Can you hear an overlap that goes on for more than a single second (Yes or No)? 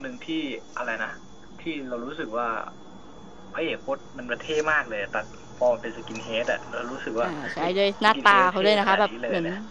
Yes